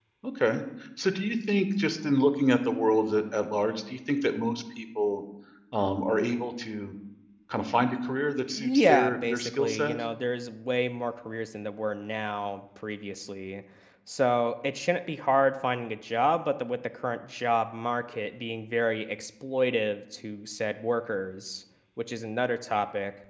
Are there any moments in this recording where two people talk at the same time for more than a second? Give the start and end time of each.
8.6-10.0

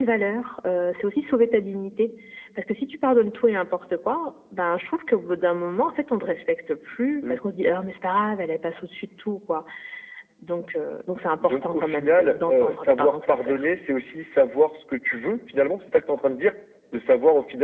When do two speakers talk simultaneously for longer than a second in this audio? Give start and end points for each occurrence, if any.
11.4-13.6

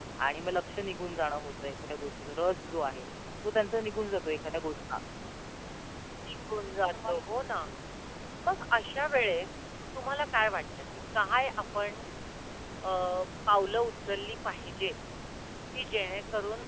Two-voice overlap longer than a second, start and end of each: none

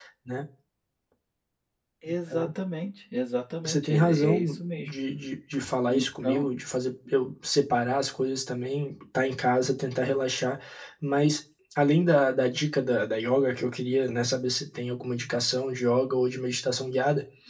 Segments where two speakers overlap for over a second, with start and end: 3.6-5.0

